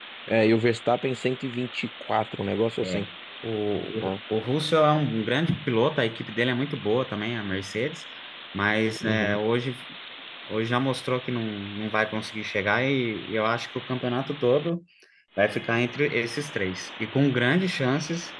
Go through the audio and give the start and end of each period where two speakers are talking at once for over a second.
none

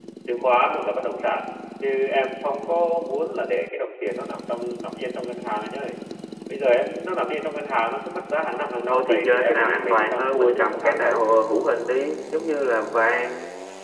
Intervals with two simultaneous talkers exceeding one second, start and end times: 8.9-11.2

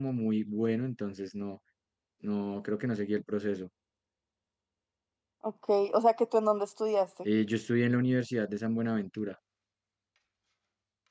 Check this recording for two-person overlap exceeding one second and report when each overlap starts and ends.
none

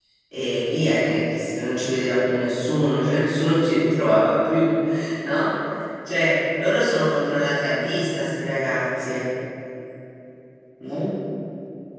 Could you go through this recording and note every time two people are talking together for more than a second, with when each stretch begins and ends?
none

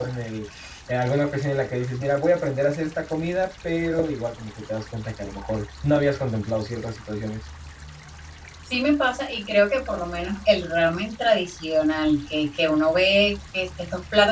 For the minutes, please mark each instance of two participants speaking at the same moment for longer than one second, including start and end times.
none

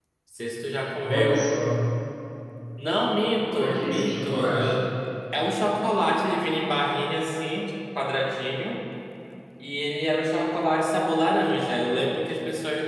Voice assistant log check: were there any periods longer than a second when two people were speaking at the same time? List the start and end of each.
3.3-4.8

